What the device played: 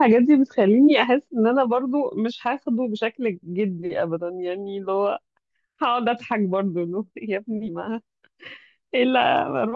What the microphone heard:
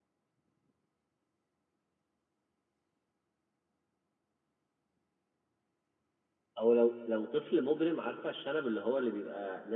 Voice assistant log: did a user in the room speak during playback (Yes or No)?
Yes